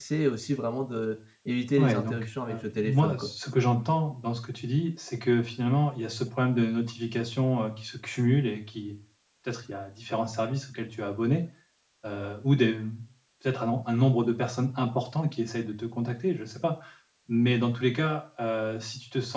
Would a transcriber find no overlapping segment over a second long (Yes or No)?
No